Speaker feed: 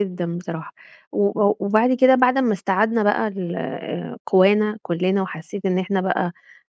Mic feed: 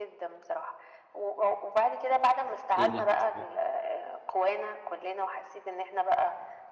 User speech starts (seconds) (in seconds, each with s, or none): 2.8 s